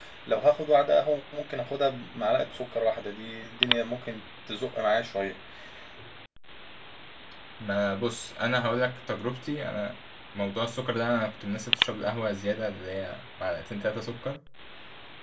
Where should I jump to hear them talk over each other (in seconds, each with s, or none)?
none